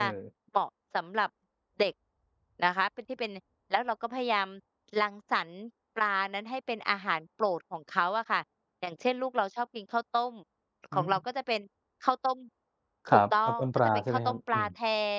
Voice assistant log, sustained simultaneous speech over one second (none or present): present